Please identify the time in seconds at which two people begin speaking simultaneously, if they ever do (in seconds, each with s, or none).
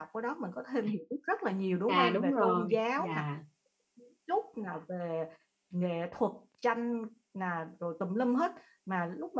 1.9 s